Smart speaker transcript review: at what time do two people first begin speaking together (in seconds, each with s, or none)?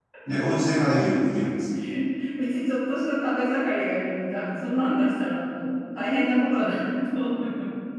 none